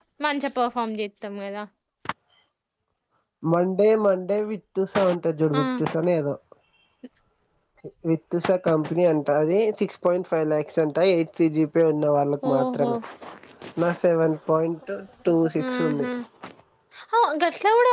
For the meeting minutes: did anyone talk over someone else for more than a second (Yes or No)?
No